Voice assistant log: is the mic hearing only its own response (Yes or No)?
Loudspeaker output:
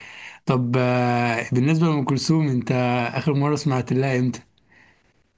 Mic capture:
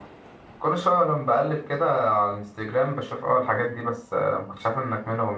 No